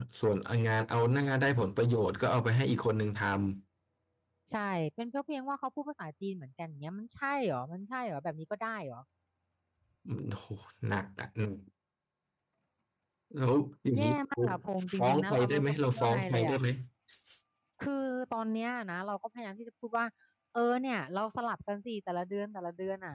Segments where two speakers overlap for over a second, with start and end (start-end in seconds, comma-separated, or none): 15.0-16.6